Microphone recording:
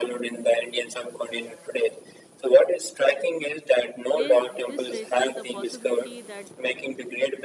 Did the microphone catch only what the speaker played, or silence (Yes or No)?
No